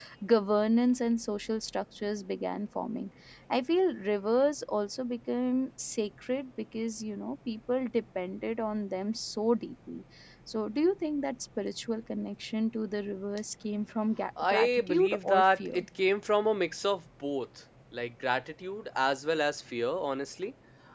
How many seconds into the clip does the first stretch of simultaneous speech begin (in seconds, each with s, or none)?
14.4 s